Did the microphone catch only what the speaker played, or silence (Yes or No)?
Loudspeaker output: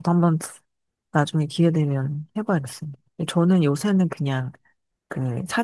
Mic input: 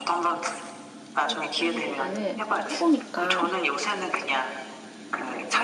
No